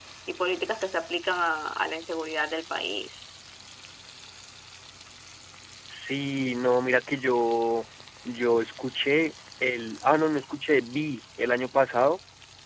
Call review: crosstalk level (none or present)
none